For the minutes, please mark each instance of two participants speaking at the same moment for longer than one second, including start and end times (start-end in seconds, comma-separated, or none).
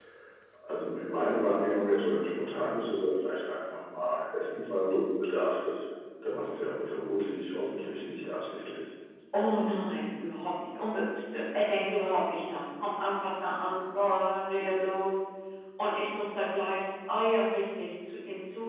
none